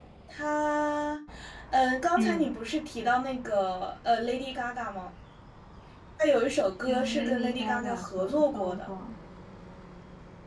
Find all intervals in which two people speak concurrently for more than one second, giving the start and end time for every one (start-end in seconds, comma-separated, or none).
6.9-8.9